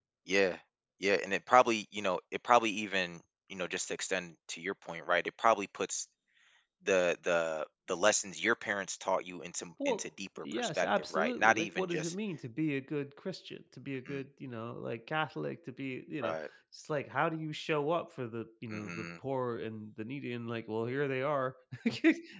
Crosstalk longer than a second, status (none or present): present